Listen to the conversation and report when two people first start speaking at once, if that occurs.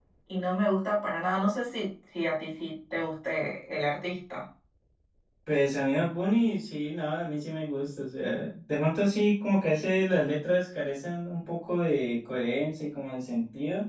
none

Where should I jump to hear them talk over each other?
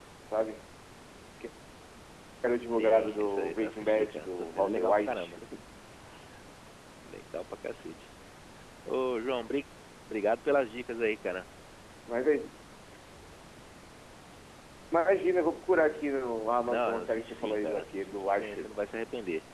2.8 s

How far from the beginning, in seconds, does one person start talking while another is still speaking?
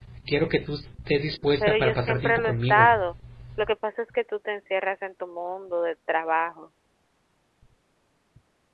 1.6 s

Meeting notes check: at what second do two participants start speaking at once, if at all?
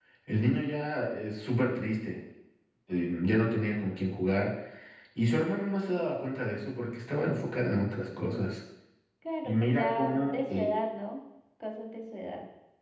9.4 s

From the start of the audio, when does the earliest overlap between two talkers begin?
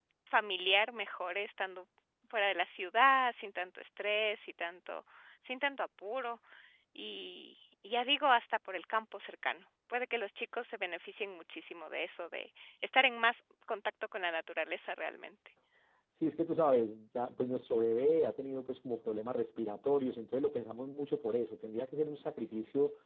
none

